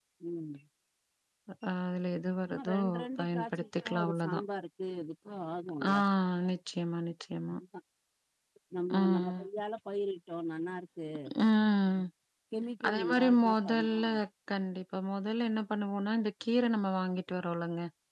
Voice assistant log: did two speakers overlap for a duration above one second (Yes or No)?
Yes